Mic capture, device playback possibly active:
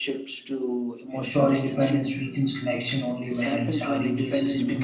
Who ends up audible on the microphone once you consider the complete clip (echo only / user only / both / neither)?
both